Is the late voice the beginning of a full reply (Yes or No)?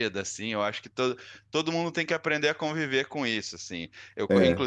No